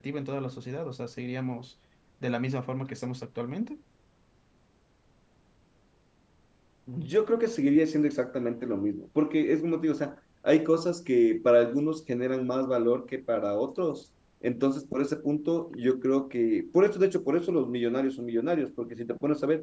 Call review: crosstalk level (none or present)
none